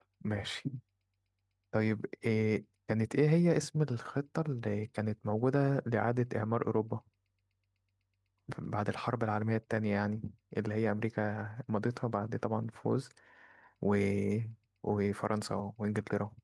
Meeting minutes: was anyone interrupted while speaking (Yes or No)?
No